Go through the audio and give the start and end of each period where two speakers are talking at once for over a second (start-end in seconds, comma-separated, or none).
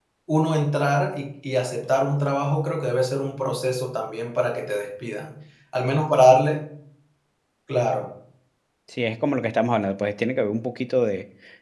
none